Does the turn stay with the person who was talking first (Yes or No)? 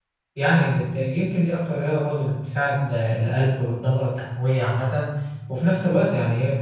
Yes